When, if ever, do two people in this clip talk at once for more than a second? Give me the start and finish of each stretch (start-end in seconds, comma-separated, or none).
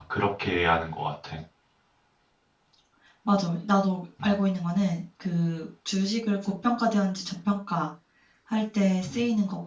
none